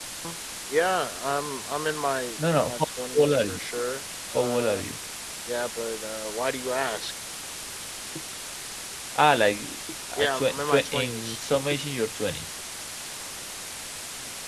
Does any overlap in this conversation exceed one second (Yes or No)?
Yes